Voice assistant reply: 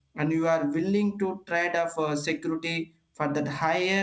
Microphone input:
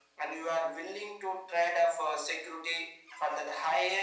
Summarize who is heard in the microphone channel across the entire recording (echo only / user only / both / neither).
echo only